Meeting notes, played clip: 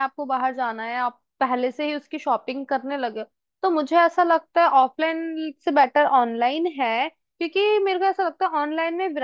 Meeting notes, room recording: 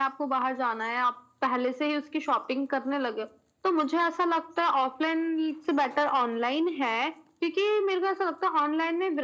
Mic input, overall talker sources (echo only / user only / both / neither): echo only